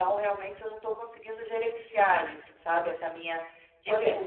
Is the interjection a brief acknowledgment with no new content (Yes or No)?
No